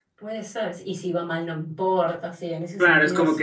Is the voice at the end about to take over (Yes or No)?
Yes